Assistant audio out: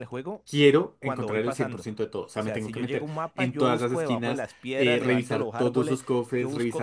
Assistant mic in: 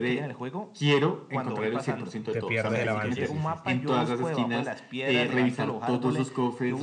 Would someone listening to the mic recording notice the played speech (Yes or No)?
Yes